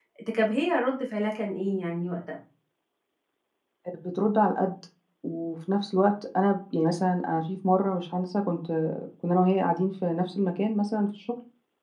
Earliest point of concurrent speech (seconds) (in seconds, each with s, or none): none